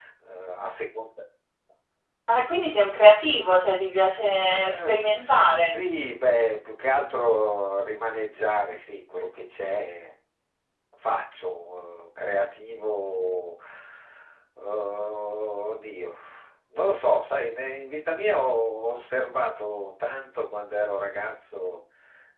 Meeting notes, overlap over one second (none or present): present